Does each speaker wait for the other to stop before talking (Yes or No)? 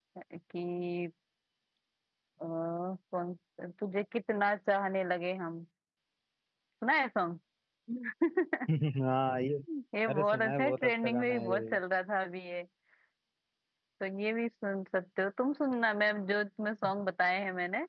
No